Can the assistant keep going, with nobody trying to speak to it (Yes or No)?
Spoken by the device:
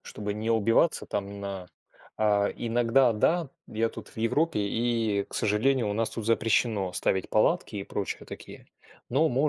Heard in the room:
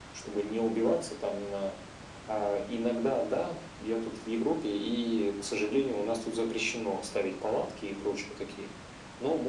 Yes